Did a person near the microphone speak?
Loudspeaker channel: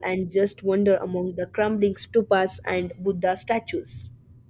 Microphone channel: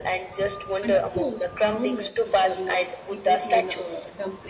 Yes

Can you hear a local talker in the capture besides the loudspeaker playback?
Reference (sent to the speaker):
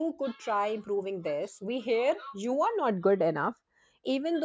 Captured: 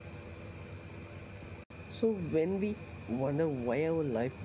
Yes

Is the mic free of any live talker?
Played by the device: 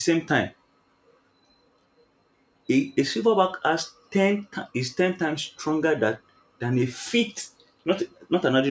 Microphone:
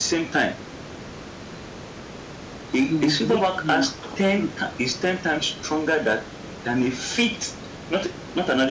No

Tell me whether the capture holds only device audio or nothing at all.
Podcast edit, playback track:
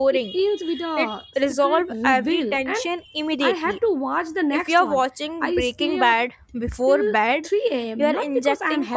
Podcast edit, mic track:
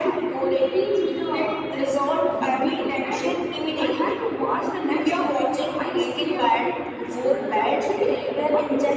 Yes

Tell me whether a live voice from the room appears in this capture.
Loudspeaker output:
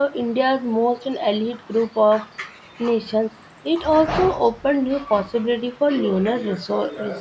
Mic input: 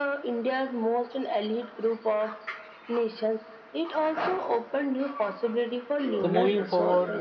Yes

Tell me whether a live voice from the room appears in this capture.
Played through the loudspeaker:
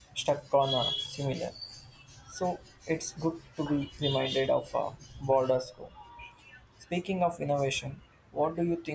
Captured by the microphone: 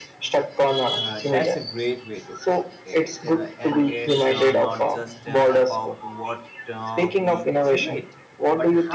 Yes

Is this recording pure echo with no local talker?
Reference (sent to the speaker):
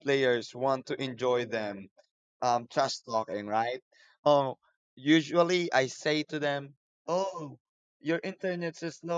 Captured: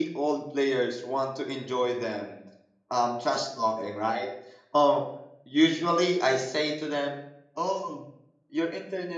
Yes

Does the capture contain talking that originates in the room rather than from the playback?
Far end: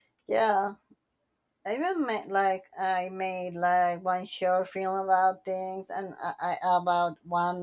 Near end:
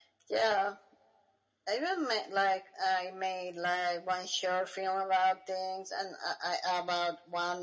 No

